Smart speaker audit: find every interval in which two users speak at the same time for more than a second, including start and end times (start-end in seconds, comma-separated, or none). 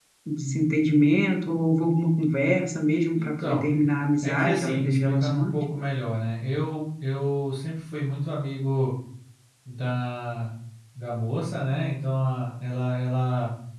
4.2-5.6